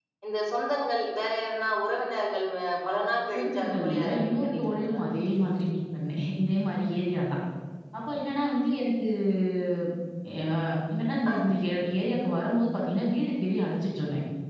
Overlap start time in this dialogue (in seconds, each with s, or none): 3.3 s